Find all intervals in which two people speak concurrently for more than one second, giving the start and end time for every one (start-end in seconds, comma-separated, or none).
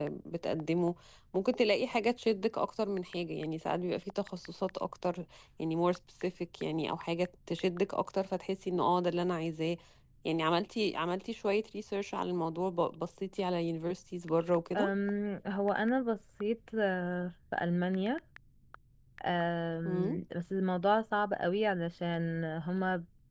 none